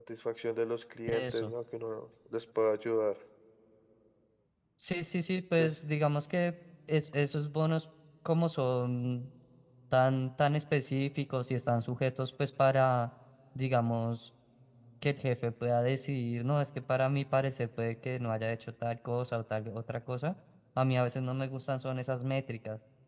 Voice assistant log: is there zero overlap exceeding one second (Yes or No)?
Yes